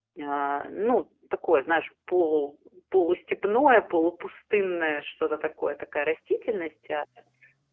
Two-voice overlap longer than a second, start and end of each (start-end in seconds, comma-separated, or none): none